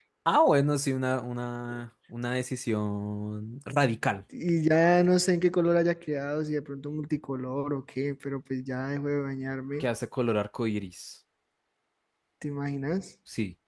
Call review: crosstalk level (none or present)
none